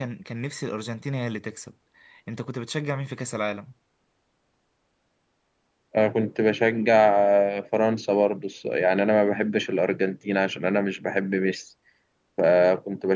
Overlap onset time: none

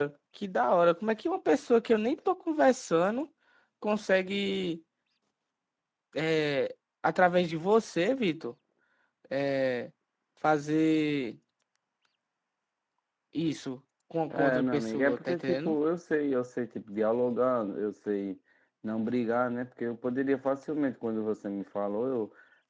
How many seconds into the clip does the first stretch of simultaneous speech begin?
14.3 s

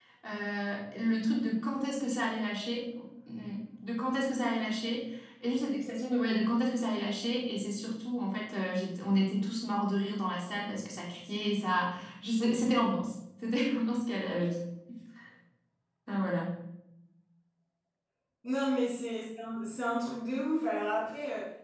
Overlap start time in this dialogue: none

